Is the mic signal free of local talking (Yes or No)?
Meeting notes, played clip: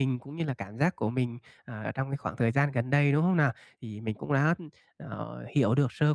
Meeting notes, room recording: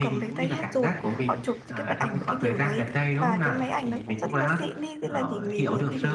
No